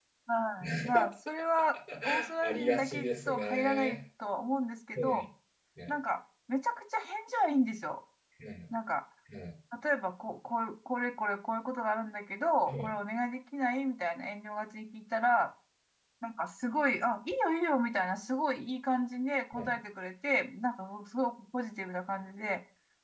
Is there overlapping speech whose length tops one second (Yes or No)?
Yes